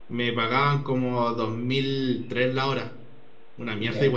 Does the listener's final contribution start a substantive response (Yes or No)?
Yes